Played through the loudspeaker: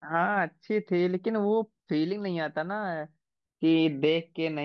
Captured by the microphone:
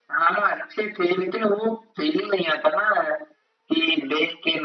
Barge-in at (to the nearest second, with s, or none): none